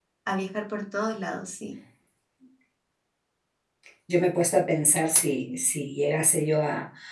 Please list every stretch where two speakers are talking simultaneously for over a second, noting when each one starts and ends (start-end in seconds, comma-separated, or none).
none